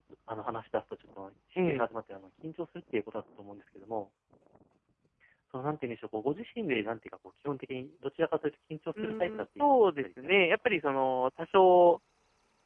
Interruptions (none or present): present